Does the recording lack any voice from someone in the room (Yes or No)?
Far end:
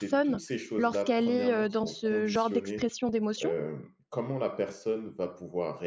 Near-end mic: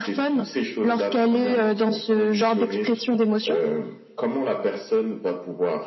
Yes